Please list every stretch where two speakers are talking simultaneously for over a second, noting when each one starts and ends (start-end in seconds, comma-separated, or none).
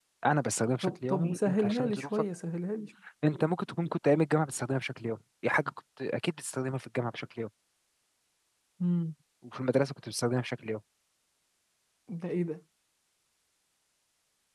0.8-2.1